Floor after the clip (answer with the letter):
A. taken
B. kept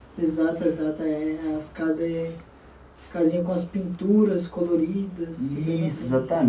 A